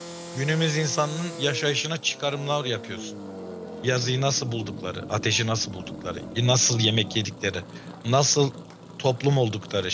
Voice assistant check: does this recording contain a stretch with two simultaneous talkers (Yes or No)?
No